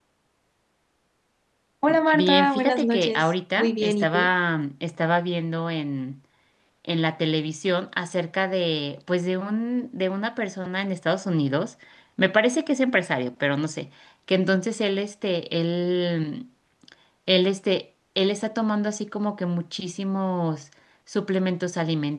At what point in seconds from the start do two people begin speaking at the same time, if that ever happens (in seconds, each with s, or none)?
2.1 s